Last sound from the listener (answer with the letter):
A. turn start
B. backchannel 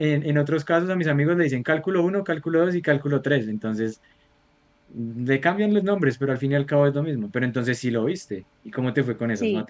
A